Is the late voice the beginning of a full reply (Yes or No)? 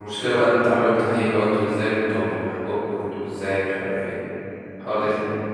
Yes